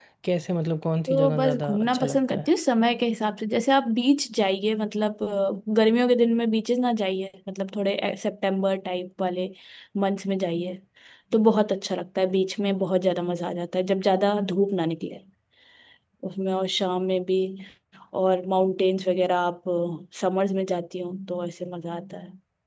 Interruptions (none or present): present